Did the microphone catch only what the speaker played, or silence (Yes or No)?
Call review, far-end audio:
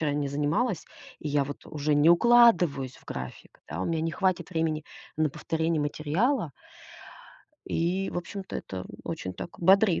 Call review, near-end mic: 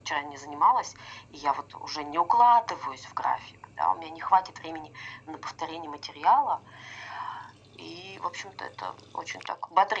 Yes